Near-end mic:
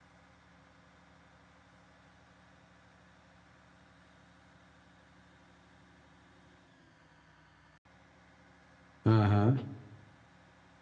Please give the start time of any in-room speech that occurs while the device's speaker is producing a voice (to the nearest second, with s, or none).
9 s